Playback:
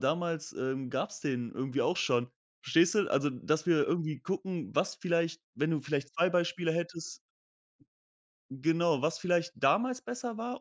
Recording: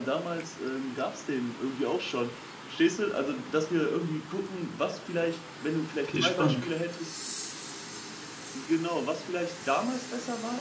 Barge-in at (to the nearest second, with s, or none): 6 s